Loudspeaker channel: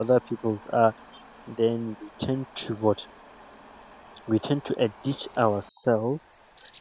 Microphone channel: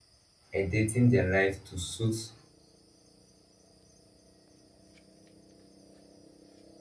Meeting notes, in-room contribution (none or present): present